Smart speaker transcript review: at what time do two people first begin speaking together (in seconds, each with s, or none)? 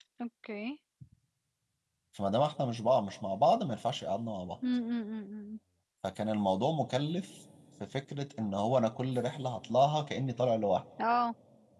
none